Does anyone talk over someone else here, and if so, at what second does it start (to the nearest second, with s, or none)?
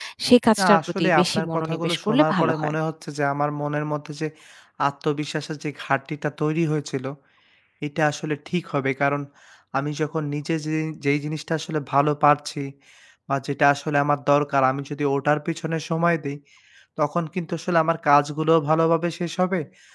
1 s